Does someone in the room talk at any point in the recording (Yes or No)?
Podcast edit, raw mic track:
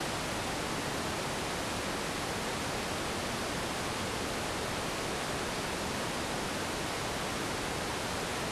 No